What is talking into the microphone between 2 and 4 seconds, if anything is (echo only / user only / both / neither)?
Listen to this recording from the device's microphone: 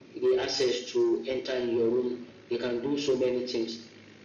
echo only